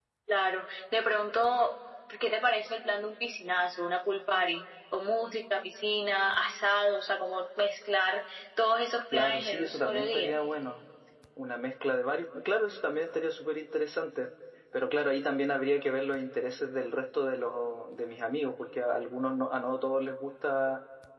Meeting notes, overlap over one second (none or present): present